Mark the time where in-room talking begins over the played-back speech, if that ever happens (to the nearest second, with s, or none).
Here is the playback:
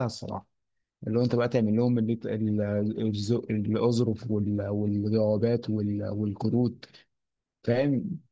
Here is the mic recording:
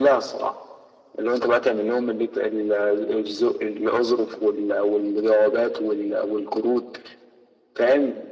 none